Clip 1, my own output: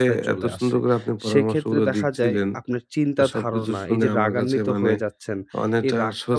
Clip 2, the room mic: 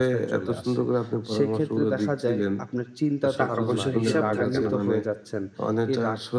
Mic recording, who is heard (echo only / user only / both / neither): both